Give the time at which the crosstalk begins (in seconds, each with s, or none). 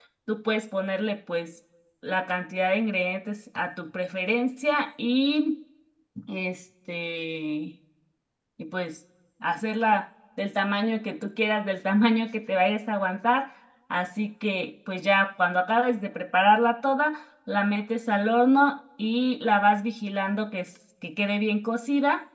none